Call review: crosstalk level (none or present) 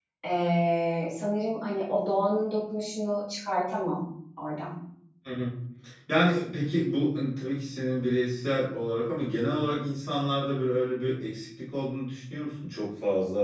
none